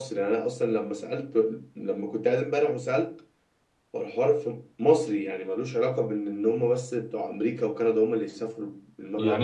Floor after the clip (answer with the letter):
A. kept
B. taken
B